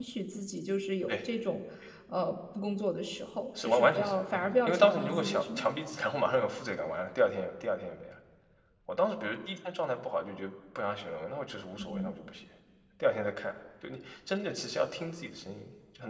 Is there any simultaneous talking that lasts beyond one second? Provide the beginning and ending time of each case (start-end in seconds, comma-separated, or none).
3.6-5.7